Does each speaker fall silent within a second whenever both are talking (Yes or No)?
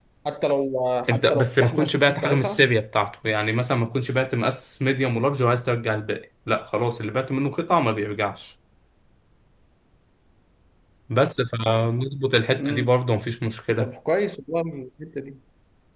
No